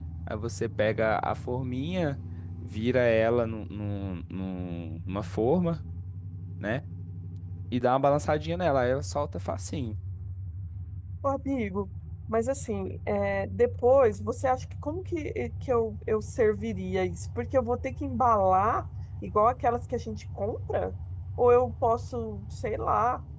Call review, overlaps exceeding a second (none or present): none